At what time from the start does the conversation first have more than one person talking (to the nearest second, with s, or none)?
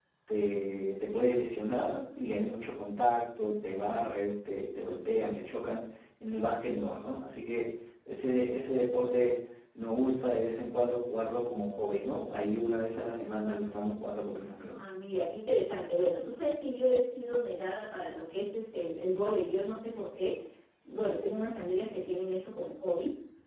none